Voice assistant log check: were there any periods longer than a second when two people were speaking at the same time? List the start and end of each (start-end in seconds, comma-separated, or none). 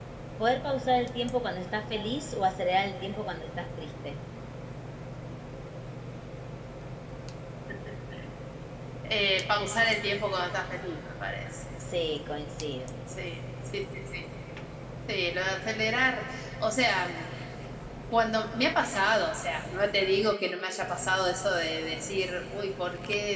none